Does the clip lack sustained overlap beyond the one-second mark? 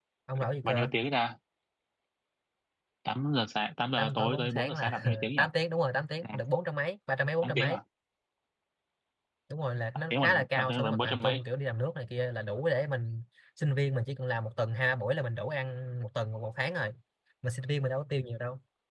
No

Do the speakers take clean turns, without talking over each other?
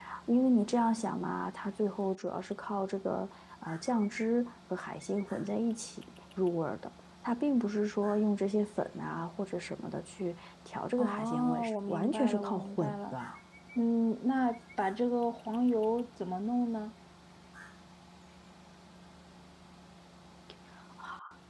No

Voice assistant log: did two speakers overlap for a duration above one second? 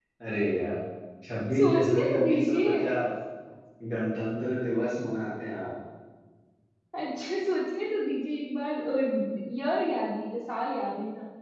Yes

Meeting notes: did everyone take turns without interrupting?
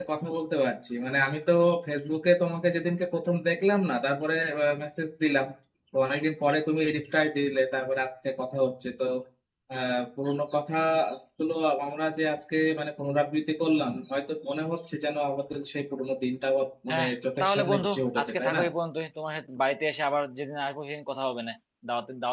No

